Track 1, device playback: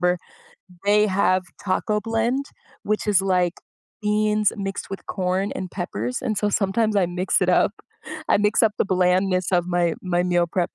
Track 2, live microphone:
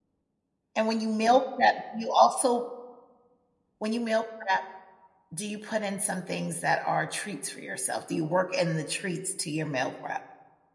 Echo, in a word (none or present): none